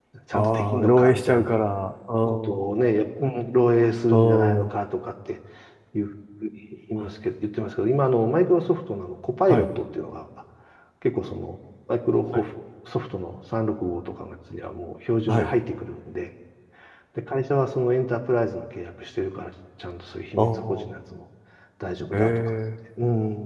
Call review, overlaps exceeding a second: present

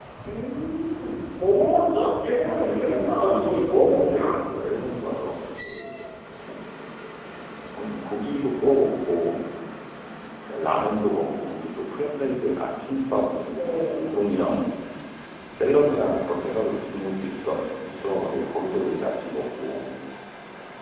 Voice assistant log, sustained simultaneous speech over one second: present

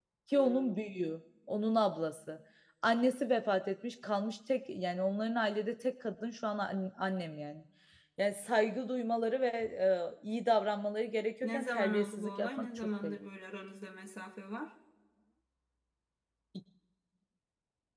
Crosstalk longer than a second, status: present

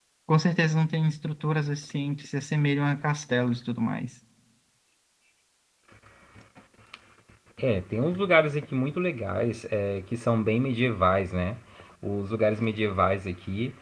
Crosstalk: none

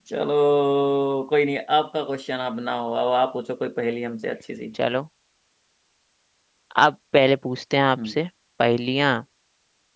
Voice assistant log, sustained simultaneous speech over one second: none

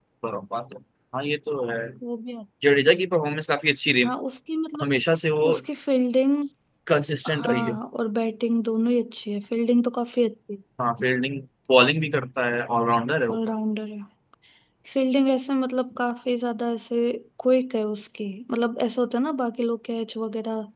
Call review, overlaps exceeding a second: none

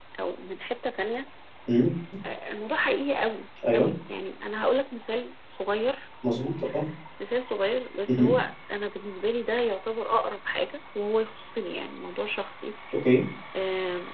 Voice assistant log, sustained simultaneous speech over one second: none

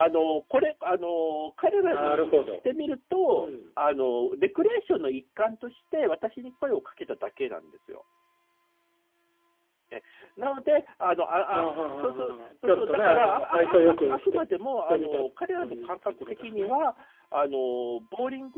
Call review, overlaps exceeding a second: present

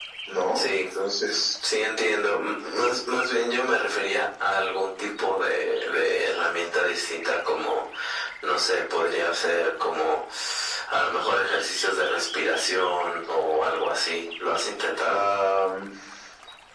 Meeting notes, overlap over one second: none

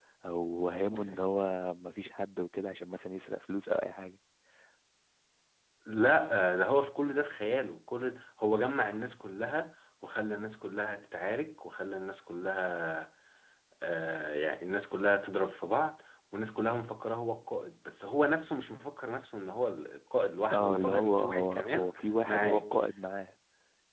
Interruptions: present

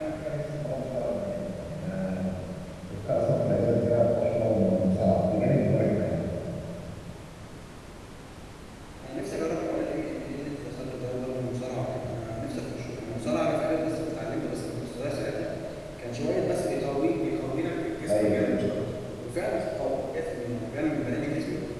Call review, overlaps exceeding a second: none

